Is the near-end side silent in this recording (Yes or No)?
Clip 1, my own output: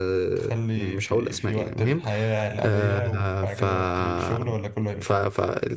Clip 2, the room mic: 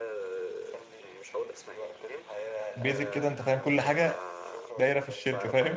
No